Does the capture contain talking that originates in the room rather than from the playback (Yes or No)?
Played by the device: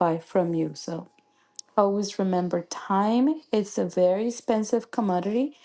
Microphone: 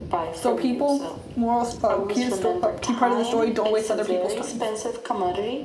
Yes